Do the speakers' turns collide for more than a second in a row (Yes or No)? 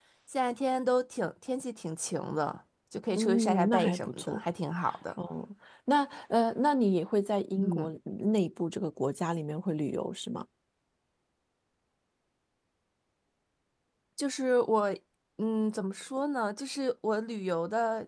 Yes